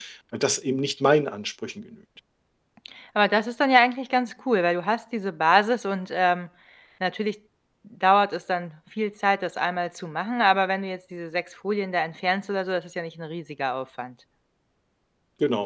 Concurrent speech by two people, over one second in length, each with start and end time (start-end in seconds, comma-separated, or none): none